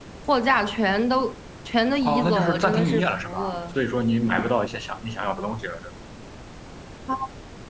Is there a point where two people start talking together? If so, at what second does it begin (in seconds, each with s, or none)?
2.0 s